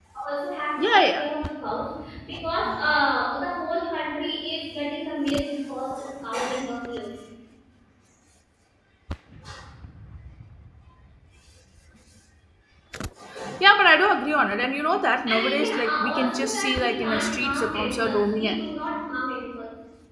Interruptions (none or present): present